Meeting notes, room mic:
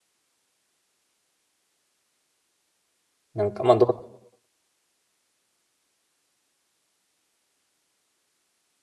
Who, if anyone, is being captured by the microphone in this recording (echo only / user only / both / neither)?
user only